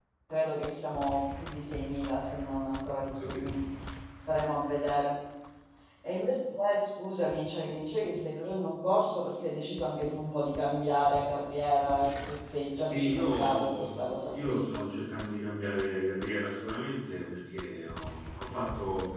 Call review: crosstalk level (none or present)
present